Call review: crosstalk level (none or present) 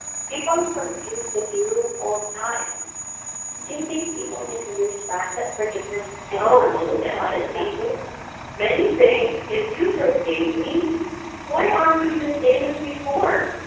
present